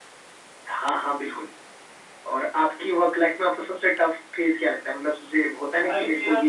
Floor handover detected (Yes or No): Yes